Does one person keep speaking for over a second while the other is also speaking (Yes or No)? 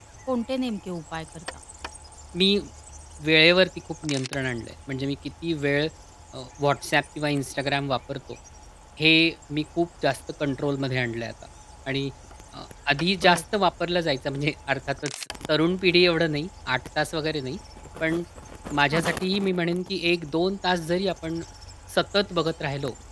No